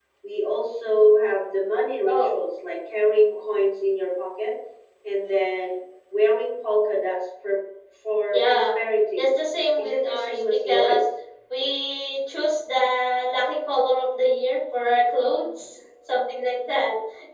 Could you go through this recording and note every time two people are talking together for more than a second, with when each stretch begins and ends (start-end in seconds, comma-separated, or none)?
9.8-11.0